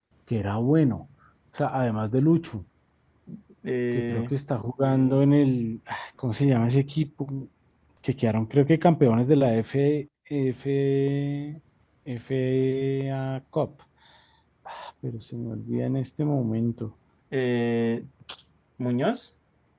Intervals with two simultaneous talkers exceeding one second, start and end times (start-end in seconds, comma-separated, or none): none